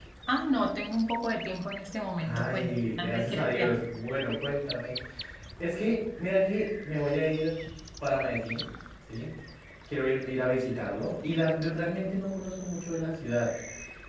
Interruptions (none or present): present